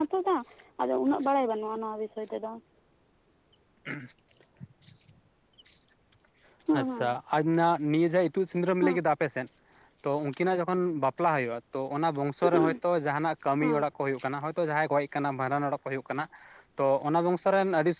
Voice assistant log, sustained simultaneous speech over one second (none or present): none